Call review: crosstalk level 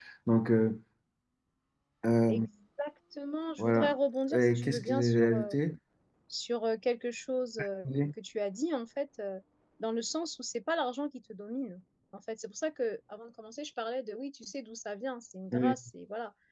present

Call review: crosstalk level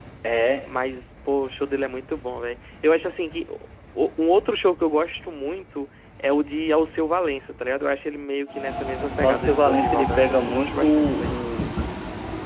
present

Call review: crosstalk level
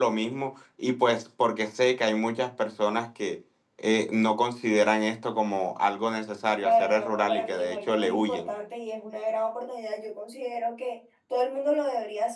present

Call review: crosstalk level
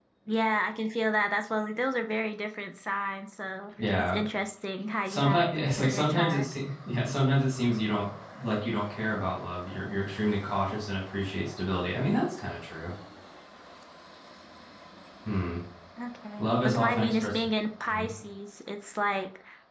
present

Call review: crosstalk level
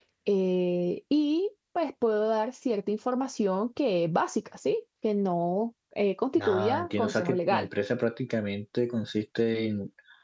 present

